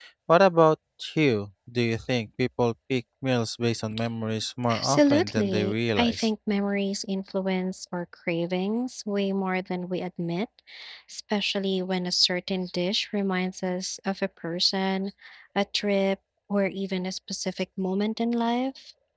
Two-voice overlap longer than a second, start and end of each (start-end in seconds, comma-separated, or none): 4.7-6.3